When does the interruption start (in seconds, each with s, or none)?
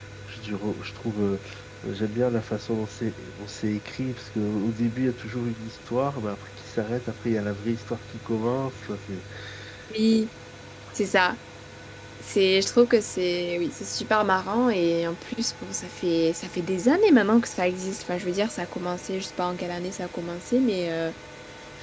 none